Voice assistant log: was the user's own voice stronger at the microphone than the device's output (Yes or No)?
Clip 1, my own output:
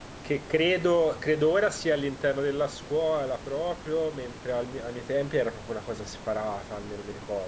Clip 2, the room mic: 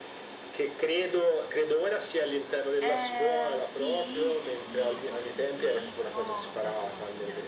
No